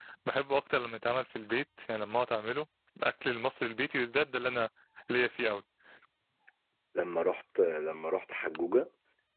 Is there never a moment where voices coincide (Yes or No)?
Yes